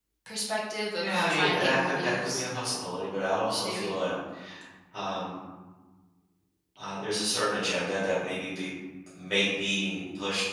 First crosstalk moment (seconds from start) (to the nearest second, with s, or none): 1 s